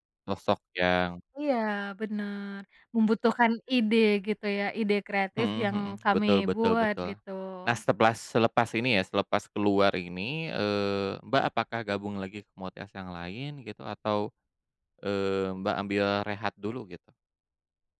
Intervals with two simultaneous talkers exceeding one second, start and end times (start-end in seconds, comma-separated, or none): 5.4-7.1